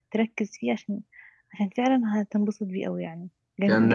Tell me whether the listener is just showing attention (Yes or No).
No